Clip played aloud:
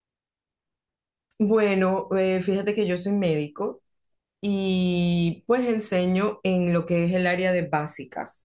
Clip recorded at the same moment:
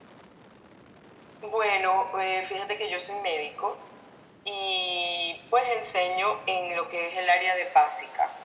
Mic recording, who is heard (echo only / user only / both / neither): echo only